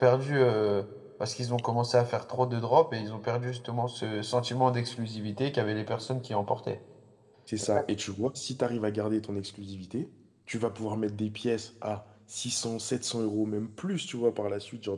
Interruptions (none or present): none